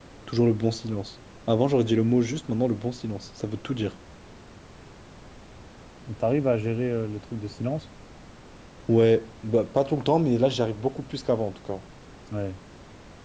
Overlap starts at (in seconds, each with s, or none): none